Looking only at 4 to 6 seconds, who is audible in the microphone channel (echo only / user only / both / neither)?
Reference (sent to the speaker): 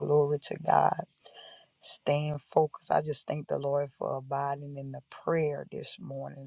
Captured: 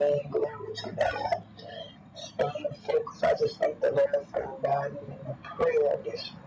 echo only